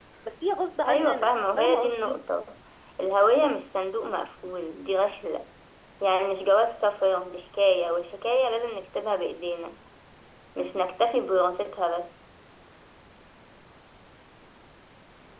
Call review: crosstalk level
present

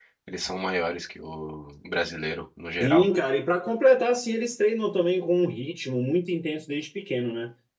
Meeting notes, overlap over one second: none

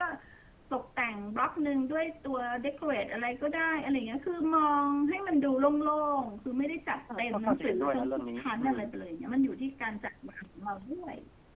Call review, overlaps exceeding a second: present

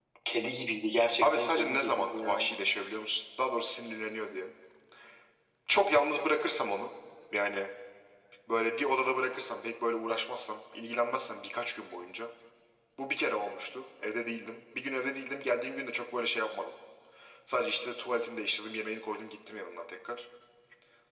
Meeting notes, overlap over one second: present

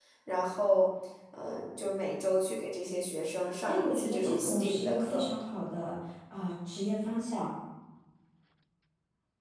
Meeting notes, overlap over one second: present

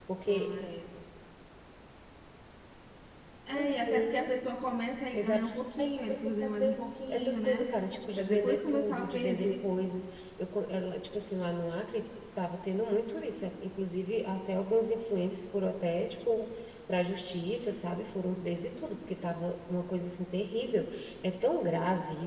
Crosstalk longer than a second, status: present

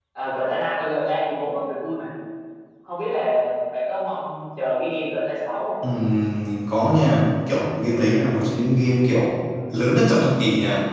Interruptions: none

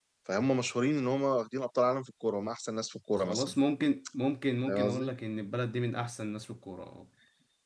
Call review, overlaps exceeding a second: none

